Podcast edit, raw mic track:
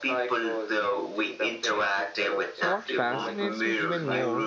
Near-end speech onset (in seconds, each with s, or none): 2.5 s